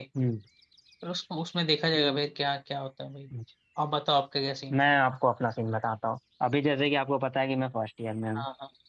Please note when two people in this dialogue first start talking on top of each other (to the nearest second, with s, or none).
none